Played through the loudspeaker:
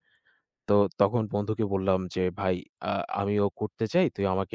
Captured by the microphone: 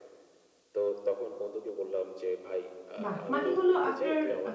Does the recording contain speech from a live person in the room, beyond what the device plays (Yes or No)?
Yes